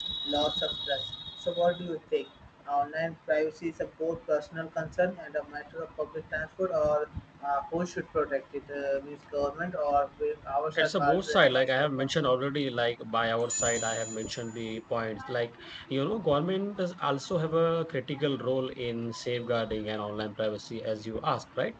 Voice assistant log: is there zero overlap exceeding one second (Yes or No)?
No